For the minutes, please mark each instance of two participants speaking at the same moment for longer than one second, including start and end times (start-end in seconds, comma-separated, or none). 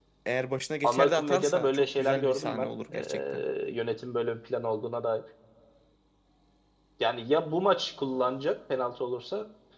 0.8-2.7